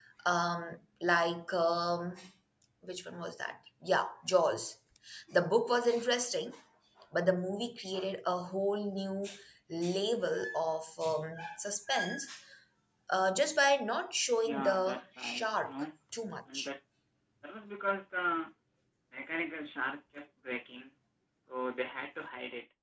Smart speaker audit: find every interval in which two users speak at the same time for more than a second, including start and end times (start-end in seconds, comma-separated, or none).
14.5-15.7